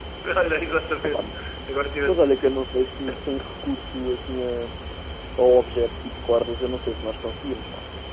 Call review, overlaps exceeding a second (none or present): none